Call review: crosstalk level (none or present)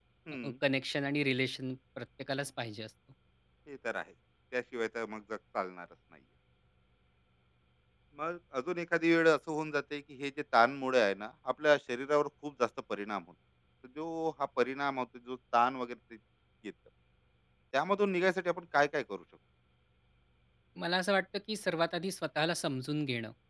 none